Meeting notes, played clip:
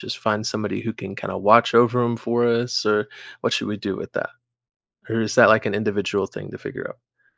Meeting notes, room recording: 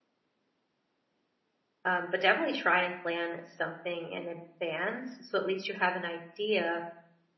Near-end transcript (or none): Um, but definitely try and plan something in advance so at least you have an idea